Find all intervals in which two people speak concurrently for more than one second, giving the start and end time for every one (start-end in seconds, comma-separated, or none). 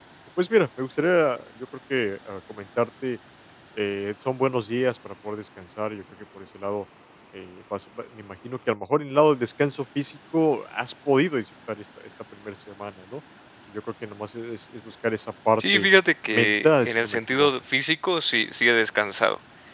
16.3-17.5